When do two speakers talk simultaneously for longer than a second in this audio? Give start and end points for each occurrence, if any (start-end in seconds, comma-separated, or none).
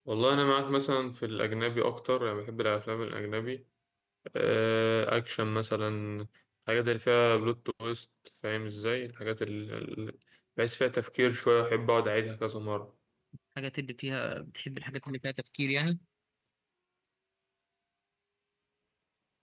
none